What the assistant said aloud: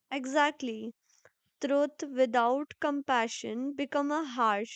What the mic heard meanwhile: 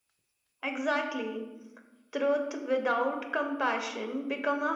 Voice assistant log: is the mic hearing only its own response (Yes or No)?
Yes